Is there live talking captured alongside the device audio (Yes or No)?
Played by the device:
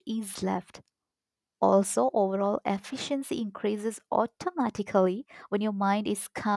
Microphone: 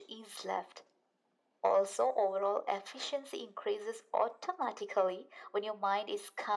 No